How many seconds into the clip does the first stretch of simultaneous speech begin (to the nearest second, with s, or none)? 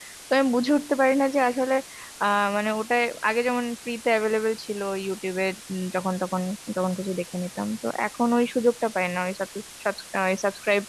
none